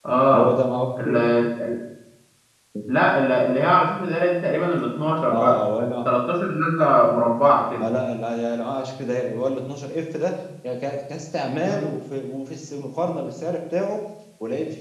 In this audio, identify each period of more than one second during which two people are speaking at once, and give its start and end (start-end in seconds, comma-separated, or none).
none